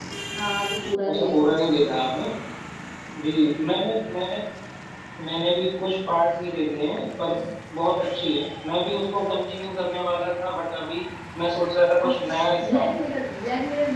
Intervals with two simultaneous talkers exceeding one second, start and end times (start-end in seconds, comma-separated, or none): 12.0-13.2